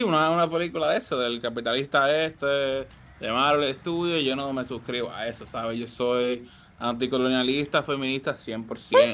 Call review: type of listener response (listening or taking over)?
taking over